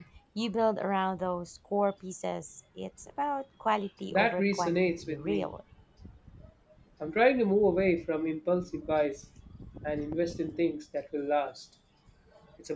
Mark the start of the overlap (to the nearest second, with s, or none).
4 s